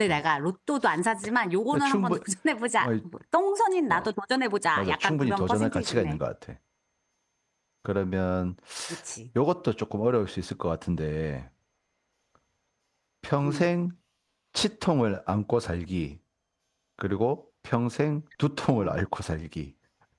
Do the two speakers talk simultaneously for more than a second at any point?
Yes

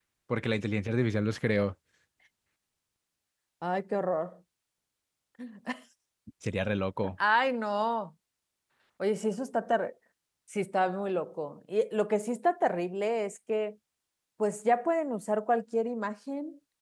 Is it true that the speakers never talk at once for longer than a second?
Yes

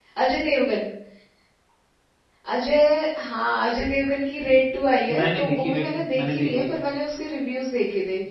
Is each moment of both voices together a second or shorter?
No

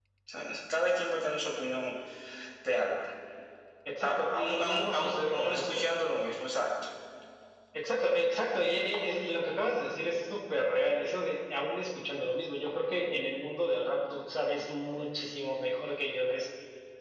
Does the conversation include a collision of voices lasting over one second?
Yes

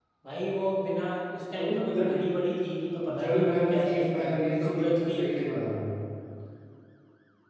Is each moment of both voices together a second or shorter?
No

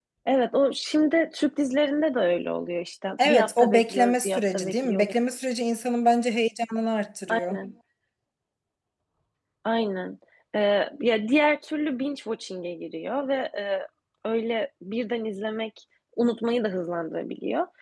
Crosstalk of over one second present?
Yes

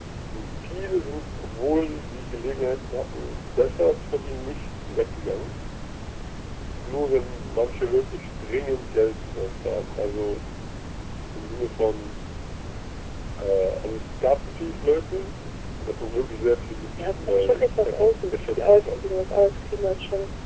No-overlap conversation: No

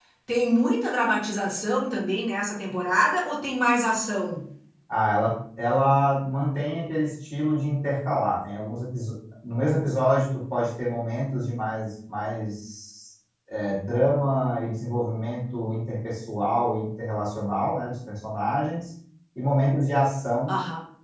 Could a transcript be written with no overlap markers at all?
Yes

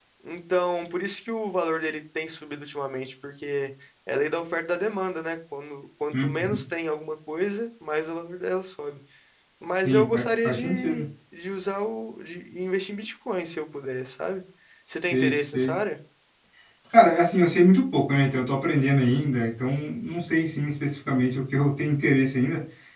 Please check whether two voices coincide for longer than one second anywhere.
Yes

